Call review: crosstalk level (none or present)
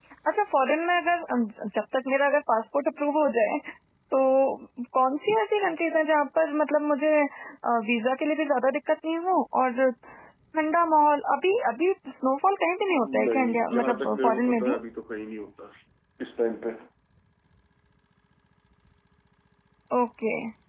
present